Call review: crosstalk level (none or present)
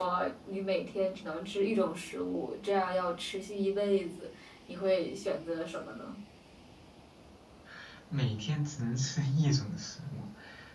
none